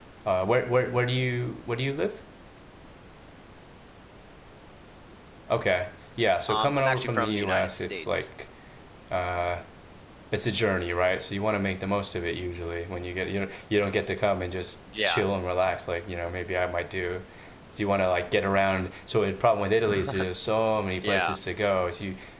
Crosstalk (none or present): present